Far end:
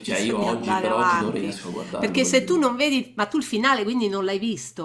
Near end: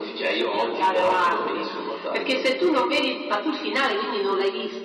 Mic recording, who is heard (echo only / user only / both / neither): echo only